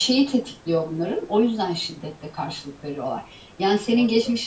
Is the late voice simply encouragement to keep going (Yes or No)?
Yes